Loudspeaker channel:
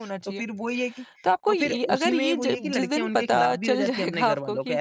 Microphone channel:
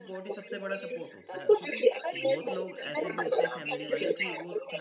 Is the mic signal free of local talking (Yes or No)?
No